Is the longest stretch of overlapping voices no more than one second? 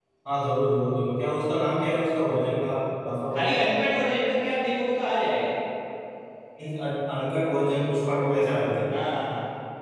Yes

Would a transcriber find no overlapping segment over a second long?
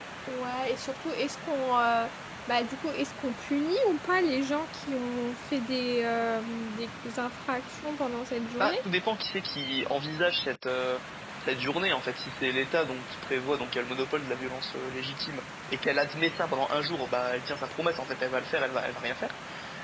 Yes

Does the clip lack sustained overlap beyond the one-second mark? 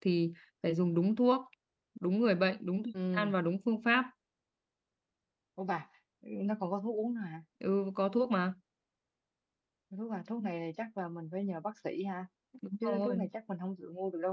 Yes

